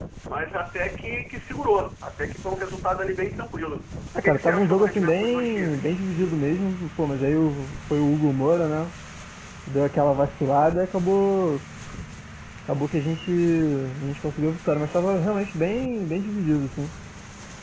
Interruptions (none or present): present